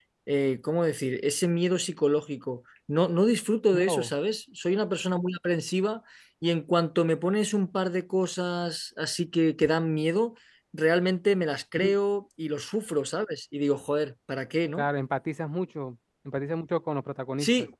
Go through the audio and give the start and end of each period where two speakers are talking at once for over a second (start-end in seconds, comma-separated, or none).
none